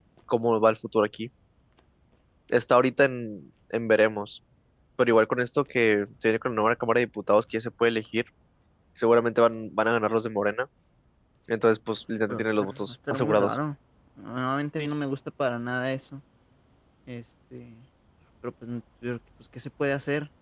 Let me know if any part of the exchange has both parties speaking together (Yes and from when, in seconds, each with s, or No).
Yes, from 12.3 s